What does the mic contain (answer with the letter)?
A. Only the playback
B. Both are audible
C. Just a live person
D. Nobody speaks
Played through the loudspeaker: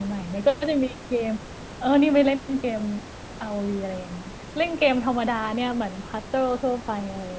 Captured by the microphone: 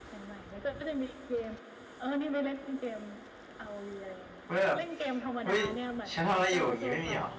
B